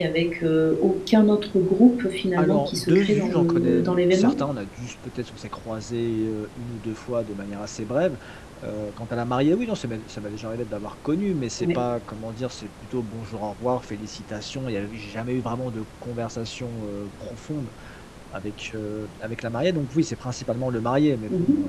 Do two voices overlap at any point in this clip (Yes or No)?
Yes